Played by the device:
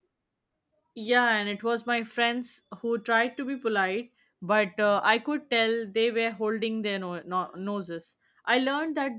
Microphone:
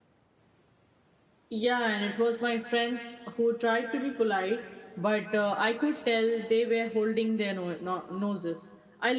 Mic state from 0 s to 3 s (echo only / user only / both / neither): echo only